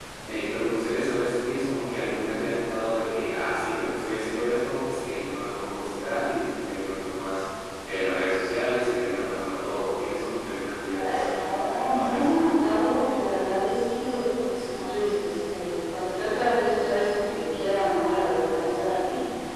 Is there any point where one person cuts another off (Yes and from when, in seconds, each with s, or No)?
Yes, from 10.9 s